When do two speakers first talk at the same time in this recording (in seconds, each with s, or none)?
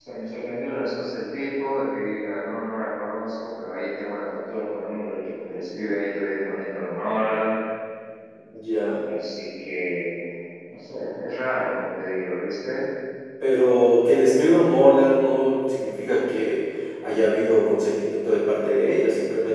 none